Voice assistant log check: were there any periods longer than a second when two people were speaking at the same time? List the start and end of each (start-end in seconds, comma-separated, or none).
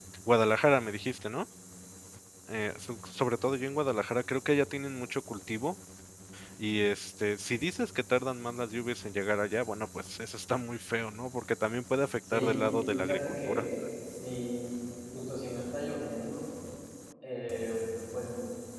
12.3-13.7